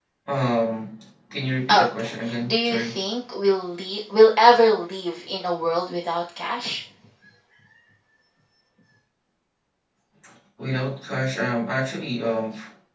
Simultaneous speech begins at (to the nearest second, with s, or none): 2 s